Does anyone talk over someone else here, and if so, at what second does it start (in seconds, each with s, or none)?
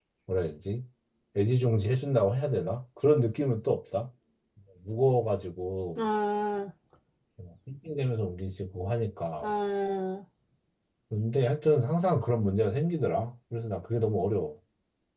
none